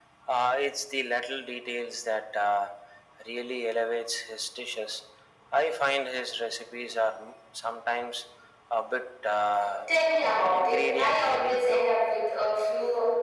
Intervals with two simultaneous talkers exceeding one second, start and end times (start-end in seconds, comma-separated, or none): 10.5-11.9